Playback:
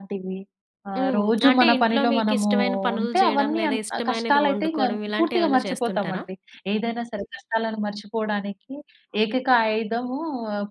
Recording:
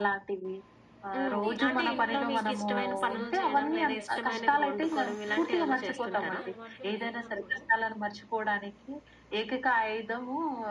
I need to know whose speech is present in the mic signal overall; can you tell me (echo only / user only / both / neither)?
both